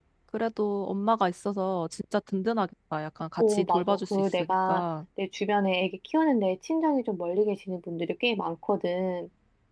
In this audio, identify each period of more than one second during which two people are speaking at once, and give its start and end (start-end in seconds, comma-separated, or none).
3.4-4.8